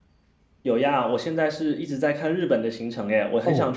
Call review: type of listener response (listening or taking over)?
taking over